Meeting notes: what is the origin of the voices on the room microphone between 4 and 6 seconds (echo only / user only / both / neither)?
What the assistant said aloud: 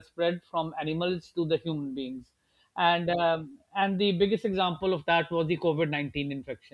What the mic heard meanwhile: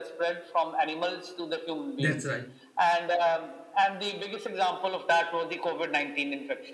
echo only